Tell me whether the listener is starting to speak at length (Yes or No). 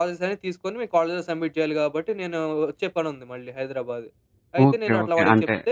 Yes